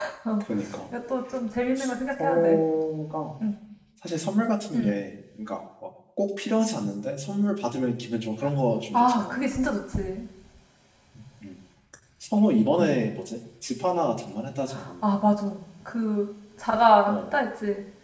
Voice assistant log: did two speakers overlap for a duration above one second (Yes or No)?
No